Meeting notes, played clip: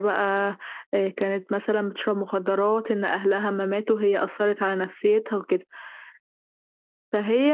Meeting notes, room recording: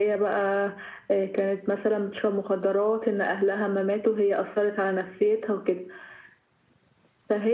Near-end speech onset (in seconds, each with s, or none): none